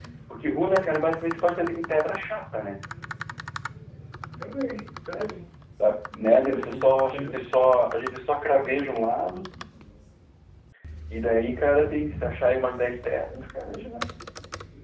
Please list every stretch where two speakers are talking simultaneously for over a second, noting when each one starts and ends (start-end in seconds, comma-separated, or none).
6.4-7.8